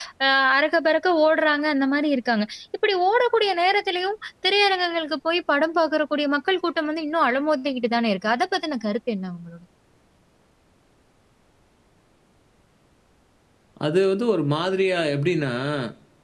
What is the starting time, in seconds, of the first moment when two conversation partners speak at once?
none

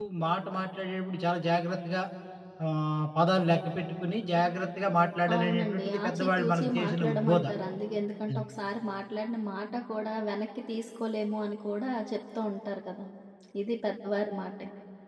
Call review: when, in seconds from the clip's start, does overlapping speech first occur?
5 s

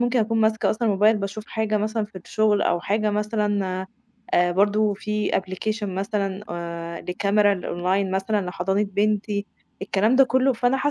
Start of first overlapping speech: none

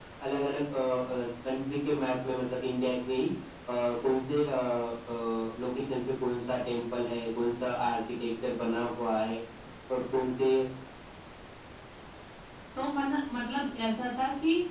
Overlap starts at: none

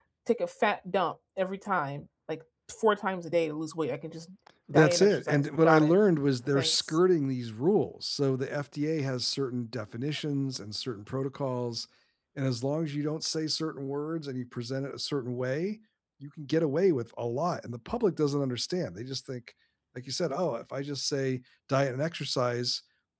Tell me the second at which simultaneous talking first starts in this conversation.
5 s

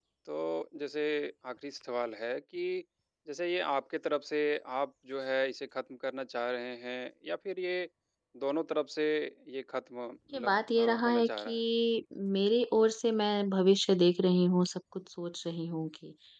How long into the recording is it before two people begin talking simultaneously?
10 s

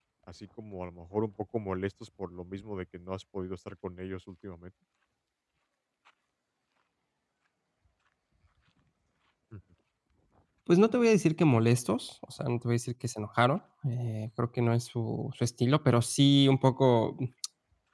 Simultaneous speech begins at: none

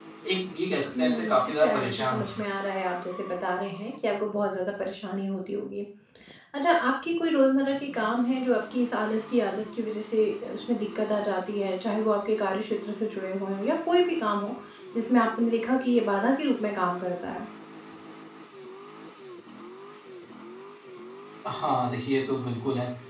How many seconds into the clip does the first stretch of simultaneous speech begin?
1 s

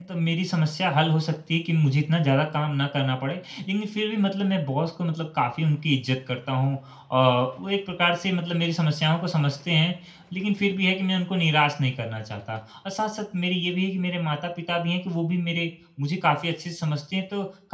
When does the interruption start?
none

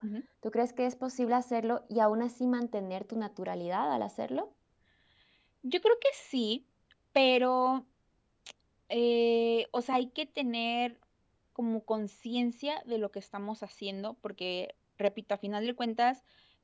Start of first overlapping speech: none

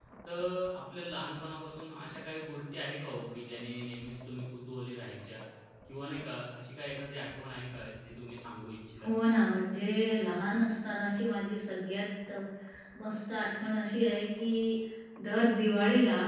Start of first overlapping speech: none

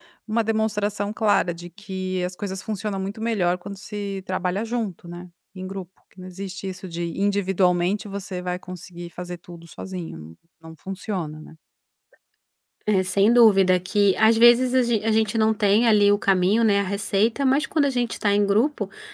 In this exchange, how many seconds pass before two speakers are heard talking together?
none

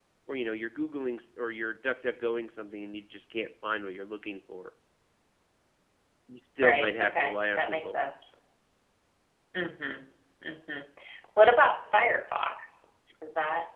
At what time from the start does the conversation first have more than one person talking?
7 s

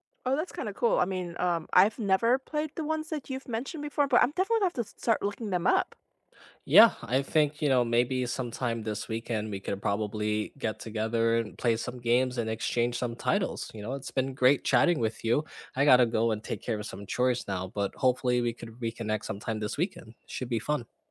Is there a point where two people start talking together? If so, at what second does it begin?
none

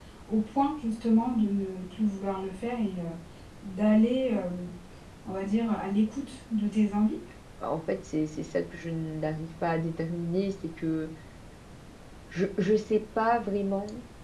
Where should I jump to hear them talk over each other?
none

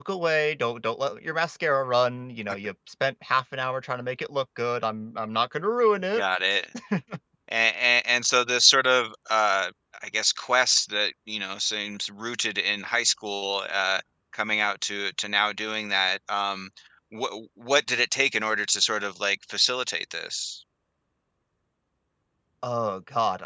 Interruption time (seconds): none

